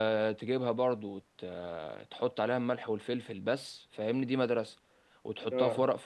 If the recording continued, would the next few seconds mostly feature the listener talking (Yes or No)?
No